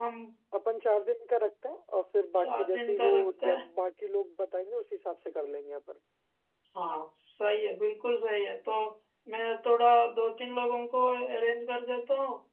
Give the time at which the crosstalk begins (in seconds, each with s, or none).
2.4 s